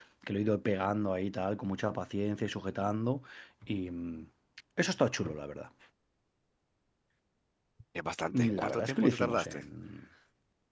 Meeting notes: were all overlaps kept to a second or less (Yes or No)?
No